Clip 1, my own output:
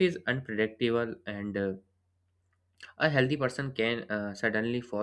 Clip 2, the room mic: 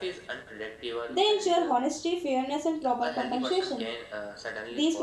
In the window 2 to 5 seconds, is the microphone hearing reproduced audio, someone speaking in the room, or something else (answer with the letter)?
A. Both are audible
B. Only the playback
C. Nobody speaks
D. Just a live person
A